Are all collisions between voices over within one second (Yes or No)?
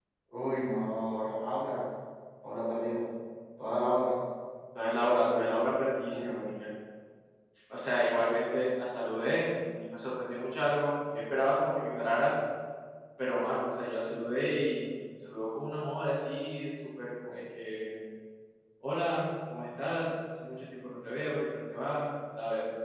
Yes